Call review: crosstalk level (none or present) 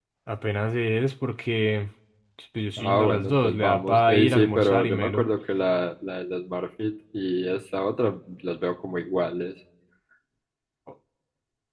present